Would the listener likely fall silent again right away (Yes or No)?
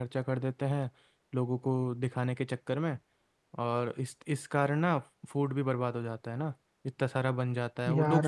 Yes